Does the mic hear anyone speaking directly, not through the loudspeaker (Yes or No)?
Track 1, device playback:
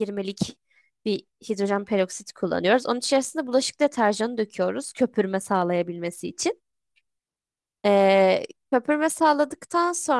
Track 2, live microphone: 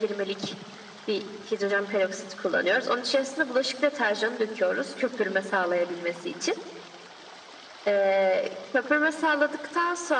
No